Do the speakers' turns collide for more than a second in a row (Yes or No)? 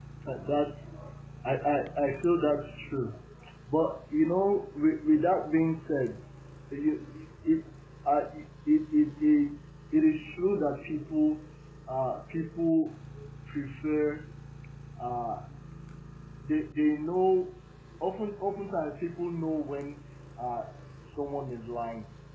No